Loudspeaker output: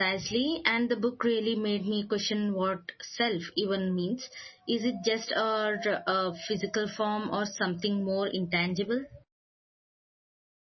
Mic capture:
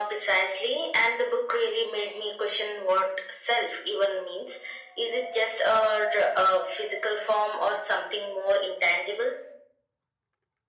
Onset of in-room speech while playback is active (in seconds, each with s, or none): none